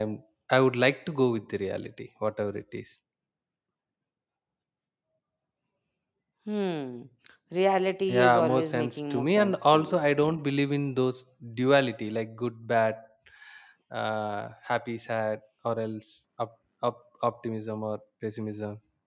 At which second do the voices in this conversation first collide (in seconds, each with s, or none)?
8.2 s